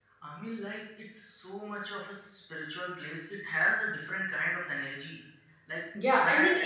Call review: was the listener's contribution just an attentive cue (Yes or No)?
No